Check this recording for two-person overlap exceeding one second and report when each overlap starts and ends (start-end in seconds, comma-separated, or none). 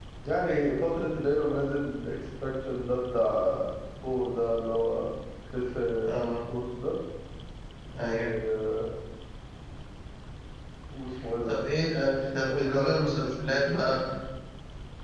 12.5-14.0